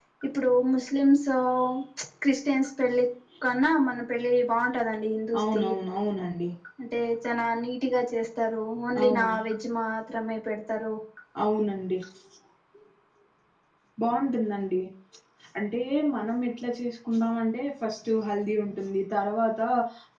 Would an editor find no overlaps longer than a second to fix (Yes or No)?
Yes